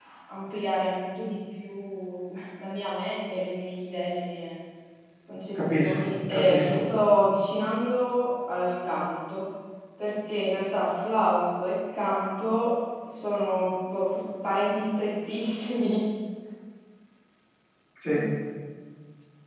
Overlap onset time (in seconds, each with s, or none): 5.6 s